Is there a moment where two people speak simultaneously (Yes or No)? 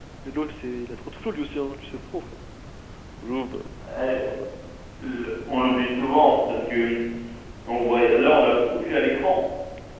No